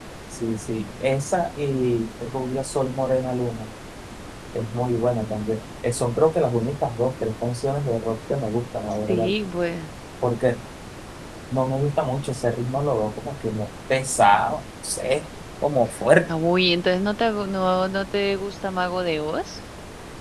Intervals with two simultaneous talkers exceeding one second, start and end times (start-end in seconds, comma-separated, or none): none